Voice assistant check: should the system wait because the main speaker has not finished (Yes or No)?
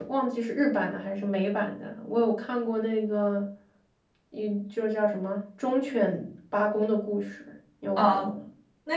No